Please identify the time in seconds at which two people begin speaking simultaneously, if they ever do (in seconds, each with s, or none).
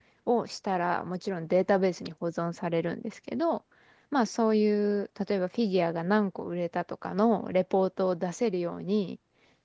none